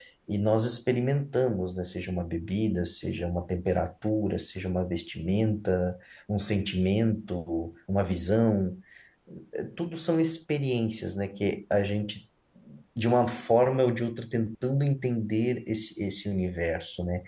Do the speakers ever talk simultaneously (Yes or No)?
No